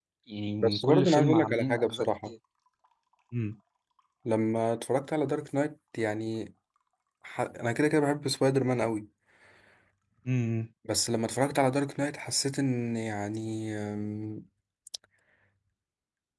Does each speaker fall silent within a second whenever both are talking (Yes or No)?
No